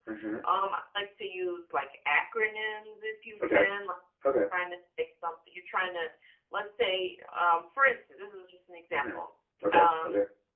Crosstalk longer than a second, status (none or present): none